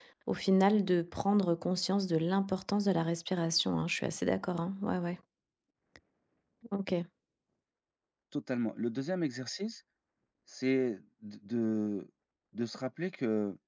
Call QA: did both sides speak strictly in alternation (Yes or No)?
Yes